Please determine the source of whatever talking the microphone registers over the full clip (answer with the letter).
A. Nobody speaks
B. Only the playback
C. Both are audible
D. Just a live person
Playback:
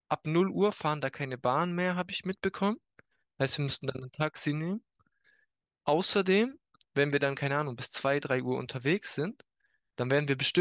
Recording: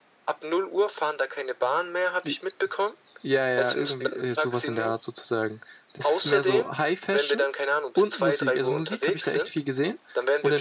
C